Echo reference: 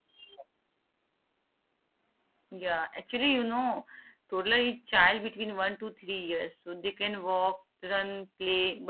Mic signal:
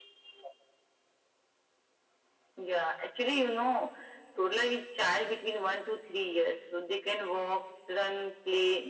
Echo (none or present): present